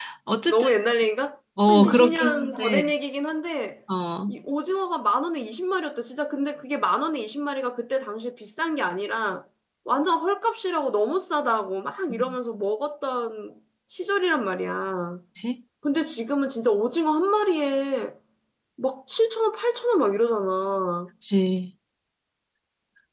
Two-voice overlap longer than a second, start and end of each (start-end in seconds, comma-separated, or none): 1.7-2.9